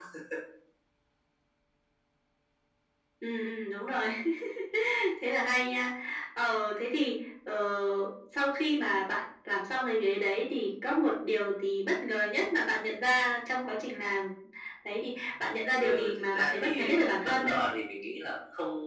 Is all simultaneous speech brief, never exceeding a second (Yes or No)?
No